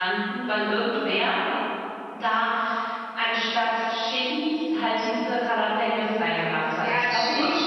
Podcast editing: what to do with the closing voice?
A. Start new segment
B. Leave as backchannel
A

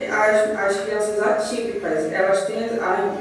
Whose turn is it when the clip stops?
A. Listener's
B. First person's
B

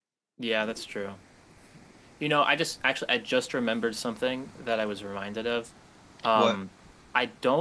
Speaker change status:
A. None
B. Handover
A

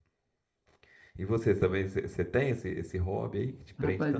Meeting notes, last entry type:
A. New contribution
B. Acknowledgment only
A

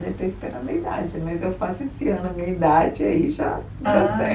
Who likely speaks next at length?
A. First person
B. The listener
B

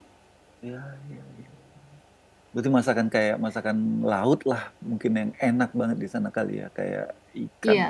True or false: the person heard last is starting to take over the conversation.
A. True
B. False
A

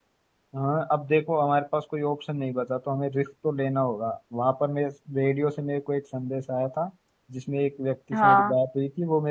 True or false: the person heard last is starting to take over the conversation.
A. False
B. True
A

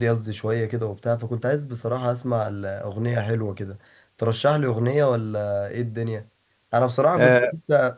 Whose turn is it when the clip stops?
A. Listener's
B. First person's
A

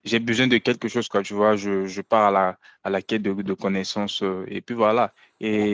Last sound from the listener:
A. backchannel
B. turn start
A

